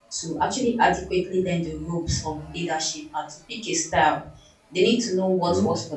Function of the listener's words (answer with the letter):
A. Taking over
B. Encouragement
B